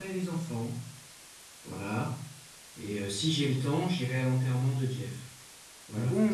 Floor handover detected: Yes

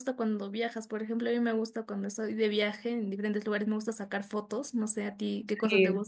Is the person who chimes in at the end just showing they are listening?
No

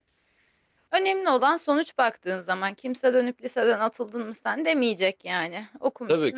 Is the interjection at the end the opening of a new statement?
Yes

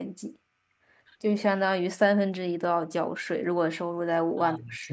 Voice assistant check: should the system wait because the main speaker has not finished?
No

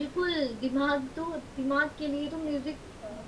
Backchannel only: Yes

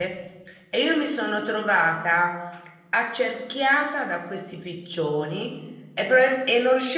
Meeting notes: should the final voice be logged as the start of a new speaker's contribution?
No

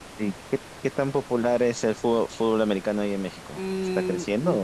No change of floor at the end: No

